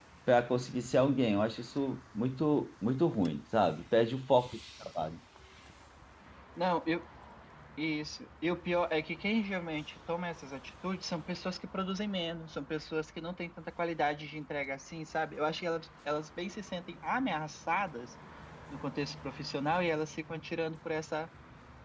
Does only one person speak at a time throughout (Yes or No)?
Yes